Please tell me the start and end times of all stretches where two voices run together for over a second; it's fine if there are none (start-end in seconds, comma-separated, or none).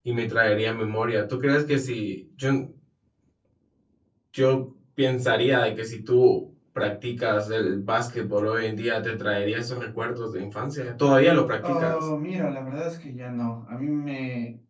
none